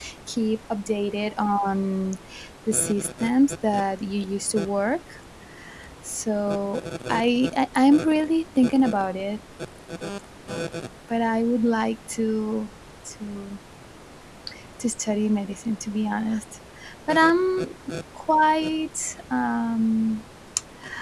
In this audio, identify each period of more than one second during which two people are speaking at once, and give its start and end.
none

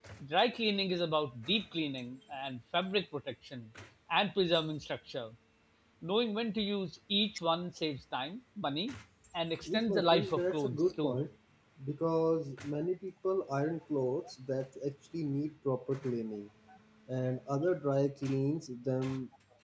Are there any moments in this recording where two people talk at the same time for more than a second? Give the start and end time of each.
9.7-11.2

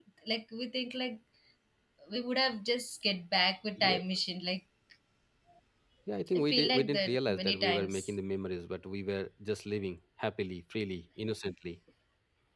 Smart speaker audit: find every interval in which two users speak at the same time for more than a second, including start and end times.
6.4-8.0

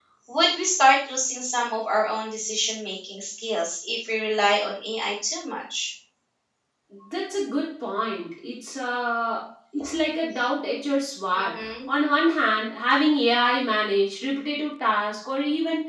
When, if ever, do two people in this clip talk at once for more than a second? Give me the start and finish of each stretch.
none

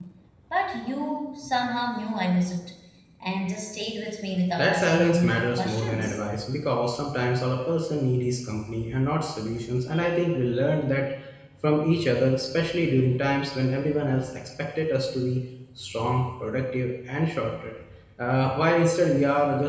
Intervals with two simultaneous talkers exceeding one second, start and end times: 4.6-6.2

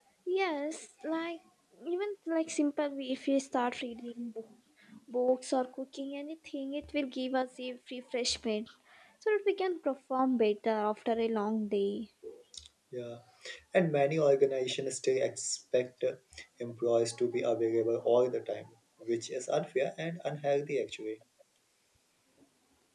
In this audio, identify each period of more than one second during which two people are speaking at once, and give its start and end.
none

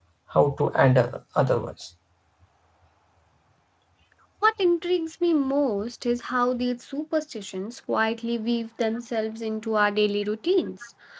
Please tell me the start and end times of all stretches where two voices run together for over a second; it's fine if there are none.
none

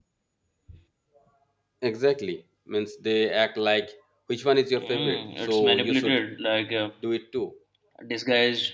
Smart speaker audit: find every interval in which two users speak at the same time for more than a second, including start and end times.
4.8-6.2

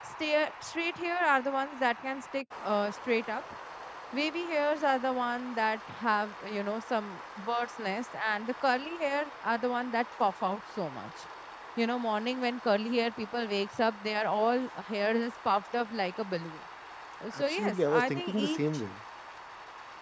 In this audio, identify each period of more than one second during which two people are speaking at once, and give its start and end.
17.3-18.6

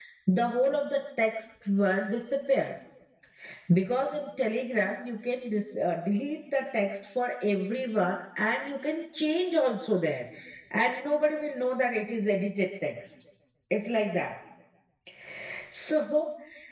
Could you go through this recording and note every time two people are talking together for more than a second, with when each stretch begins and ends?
none

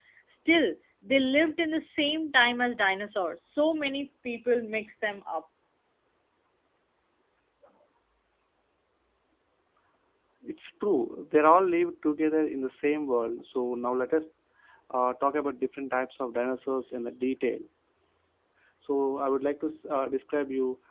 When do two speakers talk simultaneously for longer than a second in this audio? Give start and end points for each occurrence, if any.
none

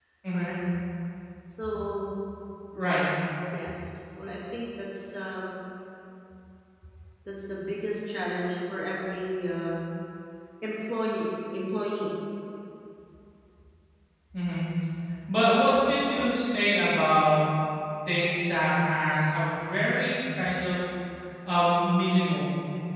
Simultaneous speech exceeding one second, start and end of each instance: none

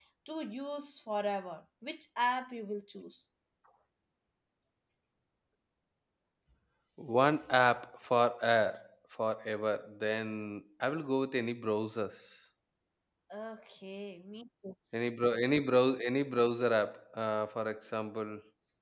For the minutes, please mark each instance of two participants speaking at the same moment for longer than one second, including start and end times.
none

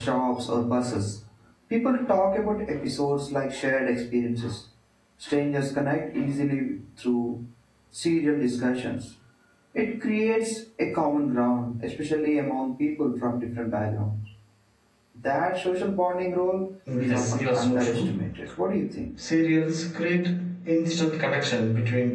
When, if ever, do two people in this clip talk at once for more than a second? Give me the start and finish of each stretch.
17.0-18.2

